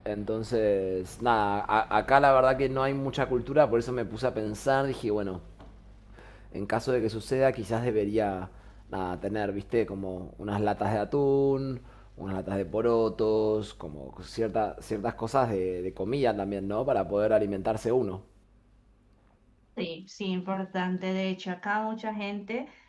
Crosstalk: none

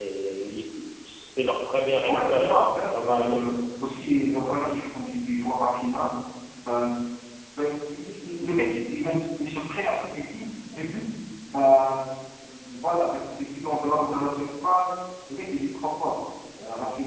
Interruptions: present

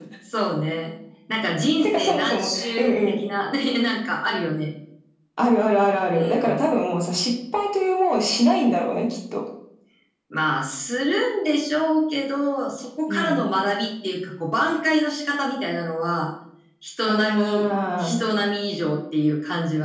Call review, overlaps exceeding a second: present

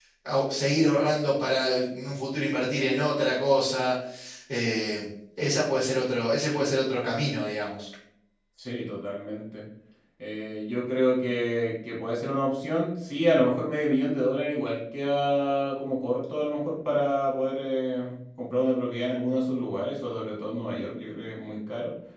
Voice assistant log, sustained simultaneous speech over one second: none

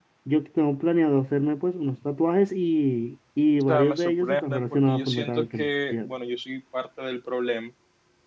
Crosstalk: present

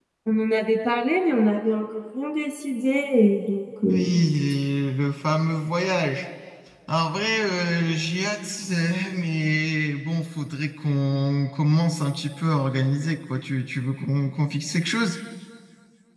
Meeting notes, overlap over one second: none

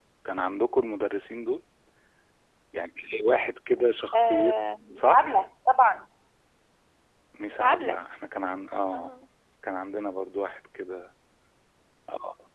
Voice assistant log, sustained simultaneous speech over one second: none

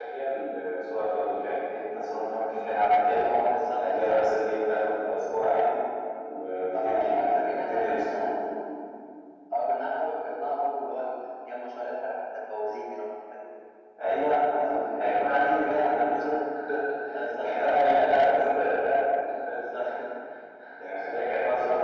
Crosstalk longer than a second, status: present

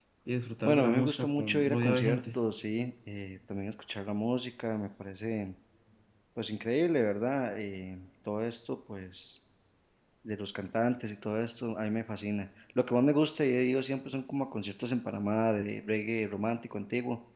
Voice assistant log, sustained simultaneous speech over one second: present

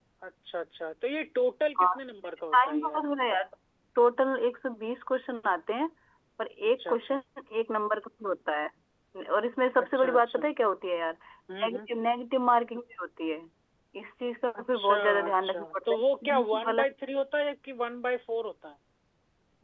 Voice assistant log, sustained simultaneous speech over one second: present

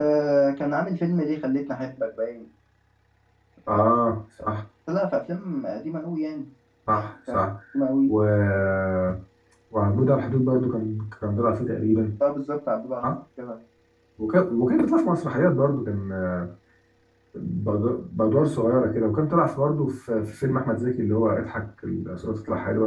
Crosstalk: none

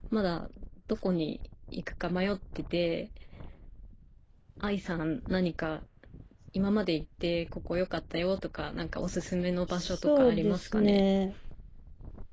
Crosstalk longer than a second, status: present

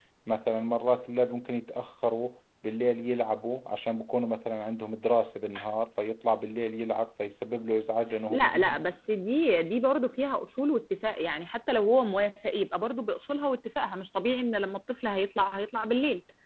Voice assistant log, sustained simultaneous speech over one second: none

